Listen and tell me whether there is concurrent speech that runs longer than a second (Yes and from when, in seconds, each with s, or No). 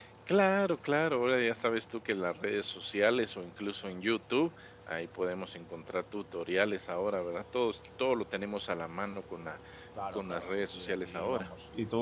Yes, from 10.1 s